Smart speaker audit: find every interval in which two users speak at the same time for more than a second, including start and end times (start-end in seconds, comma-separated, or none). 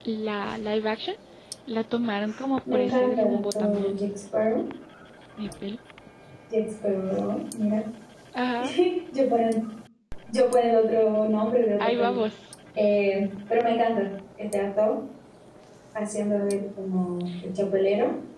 2.7-4.0